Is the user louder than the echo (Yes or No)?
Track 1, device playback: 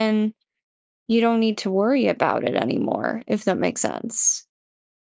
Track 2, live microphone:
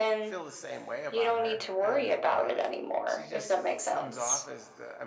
No